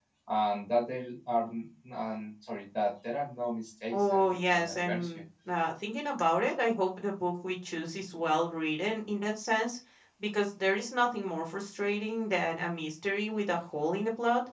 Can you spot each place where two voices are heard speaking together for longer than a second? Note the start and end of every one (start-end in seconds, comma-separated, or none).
3.9-5.2